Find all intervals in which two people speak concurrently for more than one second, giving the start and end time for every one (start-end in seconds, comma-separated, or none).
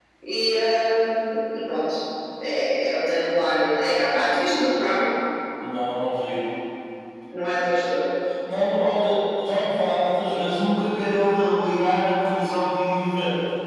none